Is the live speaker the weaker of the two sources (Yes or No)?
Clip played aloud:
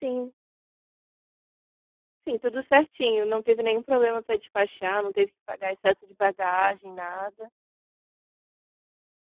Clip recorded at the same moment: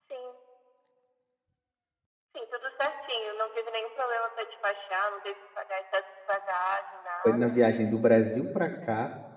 No